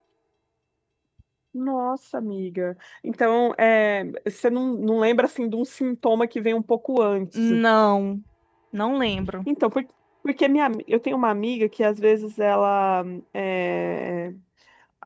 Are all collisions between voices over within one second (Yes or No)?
Yes